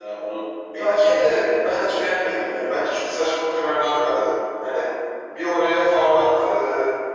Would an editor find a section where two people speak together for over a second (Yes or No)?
Yes